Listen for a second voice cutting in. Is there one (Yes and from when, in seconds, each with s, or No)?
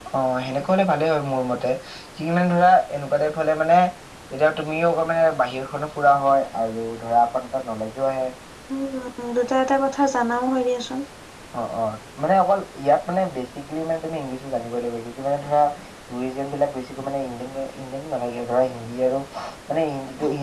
No